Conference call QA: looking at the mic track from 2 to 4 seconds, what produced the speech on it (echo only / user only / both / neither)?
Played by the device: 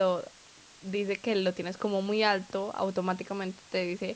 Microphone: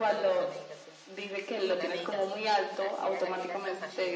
both